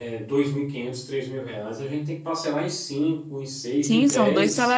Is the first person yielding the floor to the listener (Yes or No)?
Yes